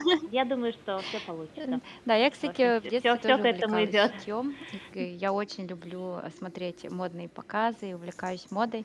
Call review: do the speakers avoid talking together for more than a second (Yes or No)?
No